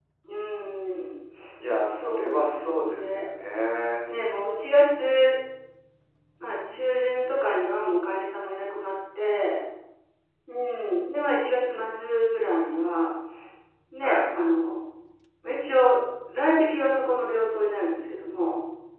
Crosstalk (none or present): present